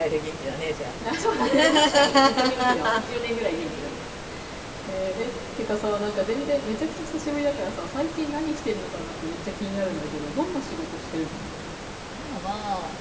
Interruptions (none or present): present